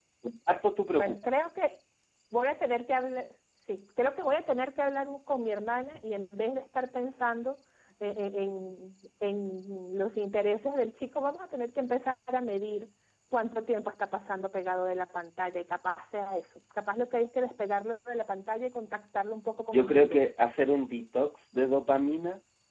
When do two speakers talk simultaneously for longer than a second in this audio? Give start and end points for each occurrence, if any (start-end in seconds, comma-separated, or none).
none